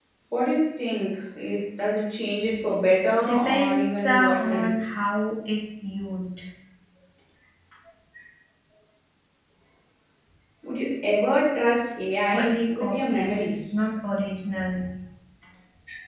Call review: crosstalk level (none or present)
present